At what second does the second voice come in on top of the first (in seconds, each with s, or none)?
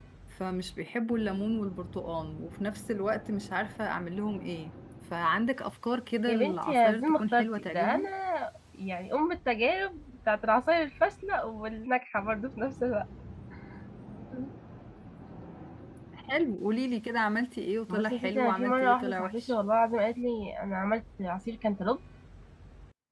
6.3 s